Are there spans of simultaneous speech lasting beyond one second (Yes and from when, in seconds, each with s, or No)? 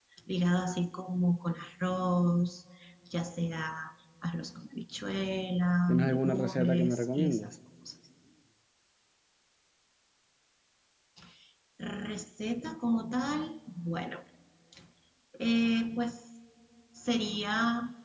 Yes, from 5.9 s